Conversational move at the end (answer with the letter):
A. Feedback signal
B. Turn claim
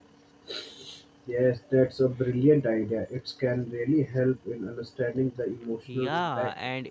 B